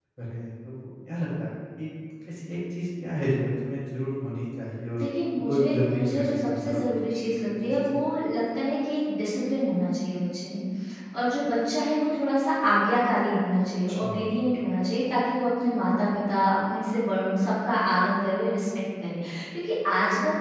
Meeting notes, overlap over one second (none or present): present